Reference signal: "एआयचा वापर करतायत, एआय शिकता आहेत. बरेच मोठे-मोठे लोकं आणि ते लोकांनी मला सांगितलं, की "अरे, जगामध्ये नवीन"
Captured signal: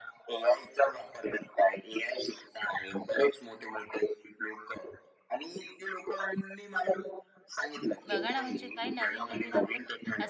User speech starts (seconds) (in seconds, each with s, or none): 8.1 s